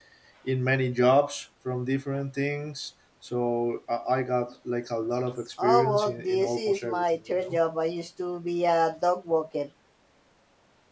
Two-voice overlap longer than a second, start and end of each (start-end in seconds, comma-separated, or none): 5.6-7.6